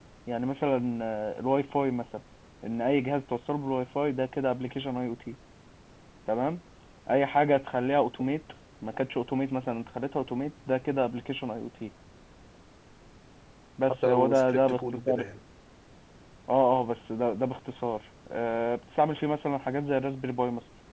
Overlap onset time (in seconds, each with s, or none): 14.1 s